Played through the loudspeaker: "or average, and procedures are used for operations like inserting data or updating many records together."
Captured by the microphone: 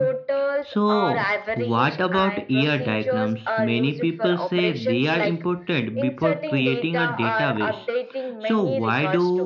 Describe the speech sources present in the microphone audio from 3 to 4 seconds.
both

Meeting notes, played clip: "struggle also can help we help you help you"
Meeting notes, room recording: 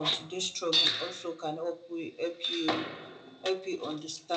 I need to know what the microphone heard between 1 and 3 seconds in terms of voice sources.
echo only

